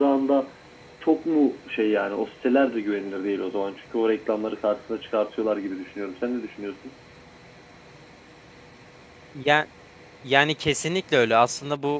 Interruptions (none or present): none